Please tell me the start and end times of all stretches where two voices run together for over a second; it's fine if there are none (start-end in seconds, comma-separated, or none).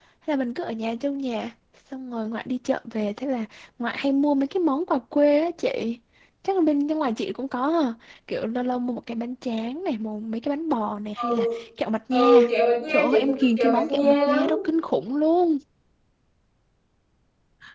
12.9-14.4